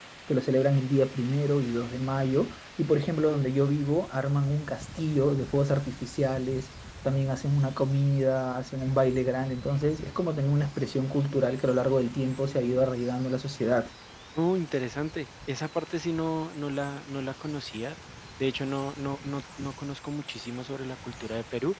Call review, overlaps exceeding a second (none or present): none